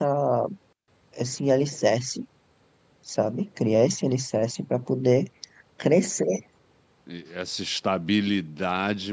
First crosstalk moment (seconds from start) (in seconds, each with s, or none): none